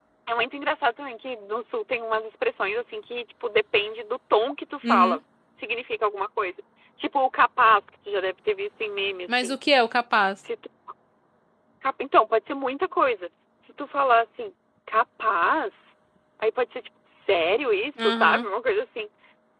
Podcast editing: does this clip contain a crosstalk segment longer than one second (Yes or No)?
No